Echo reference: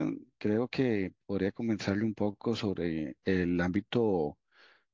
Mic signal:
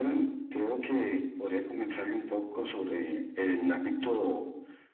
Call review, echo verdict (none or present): present